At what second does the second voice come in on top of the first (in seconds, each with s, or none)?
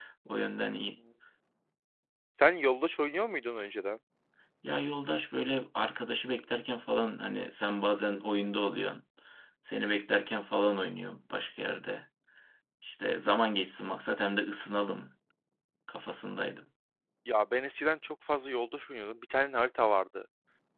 none